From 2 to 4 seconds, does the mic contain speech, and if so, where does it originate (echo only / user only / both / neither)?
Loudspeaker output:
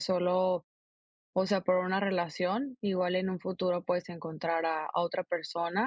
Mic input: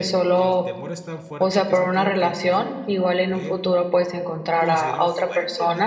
both